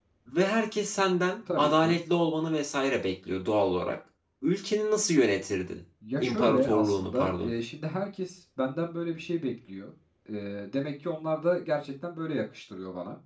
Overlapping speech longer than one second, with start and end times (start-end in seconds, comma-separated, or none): 6.2-7.5